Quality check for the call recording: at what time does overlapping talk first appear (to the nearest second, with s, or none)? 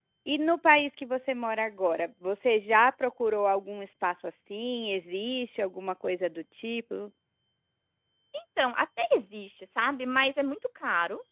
none